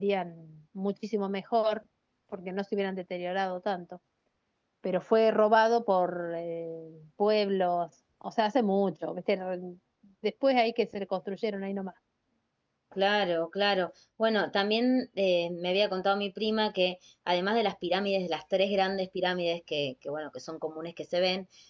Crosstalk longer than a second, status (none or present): none